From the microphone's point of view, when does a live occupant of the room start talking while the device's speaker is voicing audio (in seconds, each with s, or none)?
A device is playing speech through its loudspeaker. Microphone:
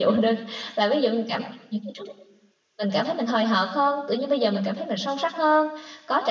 none